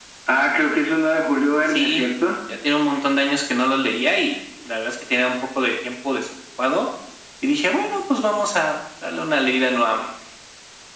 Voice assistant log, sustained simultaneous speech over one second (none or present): none